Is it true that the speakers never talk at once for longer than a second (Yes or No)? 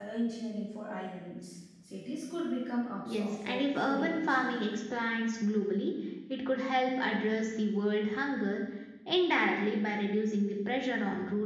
No